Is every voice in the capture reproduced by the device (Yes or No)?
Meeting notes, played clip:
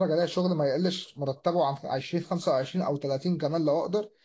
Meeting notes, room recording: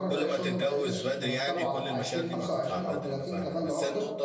No